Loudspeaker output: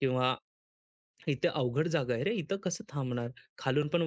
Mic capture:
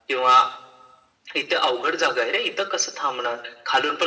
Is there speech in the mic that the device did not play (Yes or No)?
No